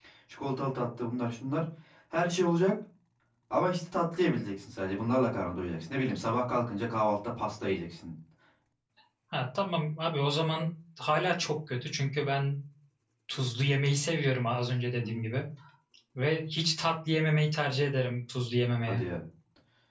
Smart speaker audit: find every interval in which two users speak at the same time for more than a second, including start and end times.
none

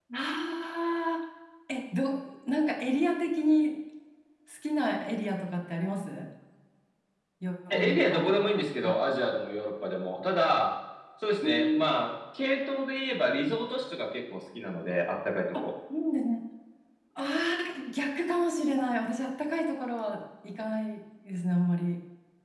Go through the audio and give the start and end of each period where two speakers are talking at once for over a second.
7.7-8.9

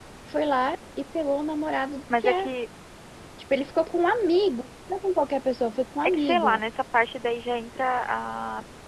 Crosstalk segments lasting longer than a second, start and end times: none

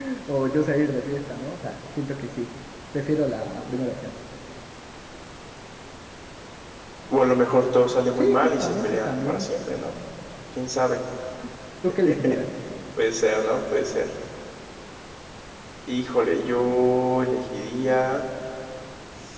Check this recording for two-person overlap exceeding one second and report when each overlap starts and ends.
8.2-9.5

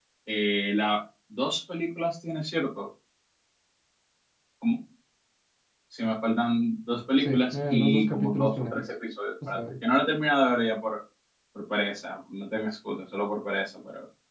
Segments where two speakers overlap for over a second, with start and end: 7.2-8.8

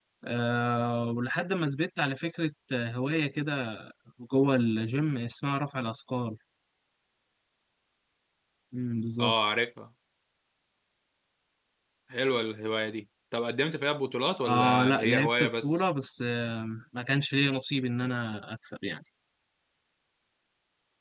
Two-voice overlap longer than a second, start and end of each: 14.4-15.8

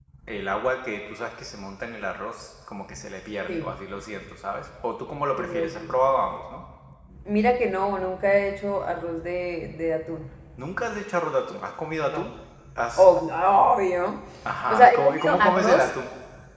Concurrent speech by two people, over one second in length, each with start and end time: 14.7-15.9

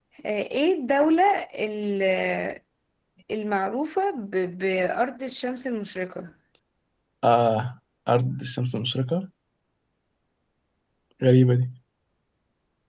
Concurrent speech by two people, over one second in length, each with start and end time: none

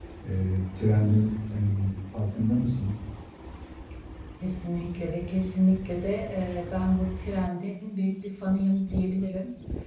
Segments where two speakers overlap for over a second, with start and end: none

